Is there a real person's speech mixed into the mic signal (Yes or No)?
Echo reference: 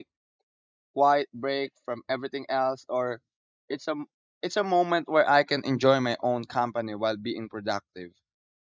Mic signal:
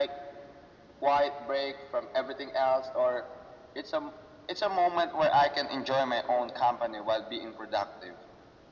No